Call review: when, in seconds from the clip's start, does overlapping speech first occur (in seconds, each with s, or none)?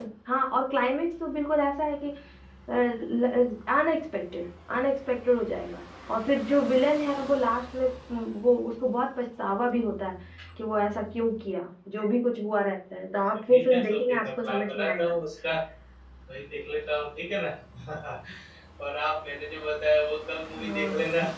13.5 s